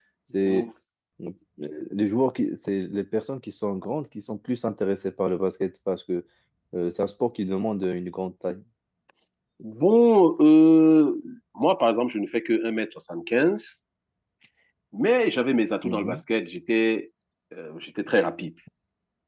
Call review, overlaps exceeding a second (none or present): none